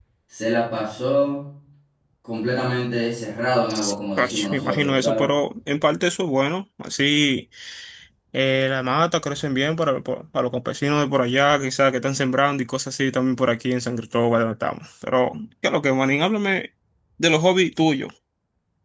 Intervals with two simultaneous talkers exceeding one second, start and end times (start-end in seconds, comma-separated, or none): 3.7-5.3